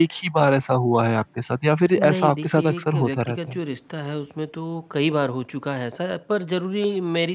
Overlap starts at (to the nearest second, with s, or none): 2 s